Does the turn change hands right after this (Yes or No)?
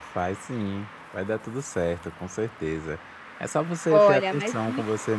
Yes